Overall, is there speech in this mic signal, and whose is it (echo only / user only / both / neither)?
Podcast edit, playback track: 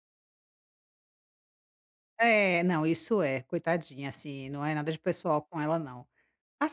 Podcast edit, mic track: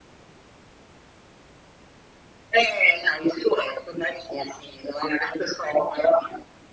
echo only